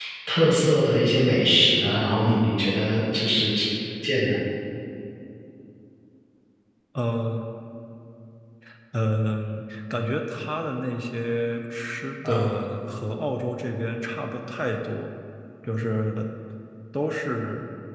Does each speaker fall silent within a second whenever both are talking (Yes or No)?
Yes